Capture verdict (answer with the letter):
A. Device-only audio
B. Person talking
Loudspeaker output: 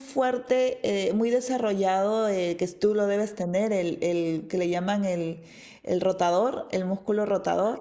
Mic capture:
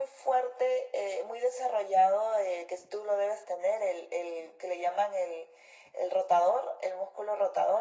A